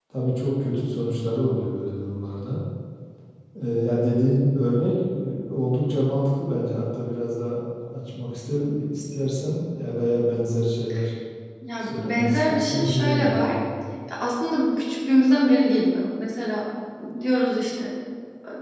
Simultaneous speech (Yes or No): Yes